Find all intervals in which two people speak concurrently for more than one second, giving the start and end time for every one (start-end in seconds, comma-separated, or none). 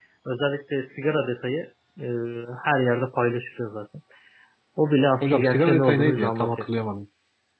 5.2-6.6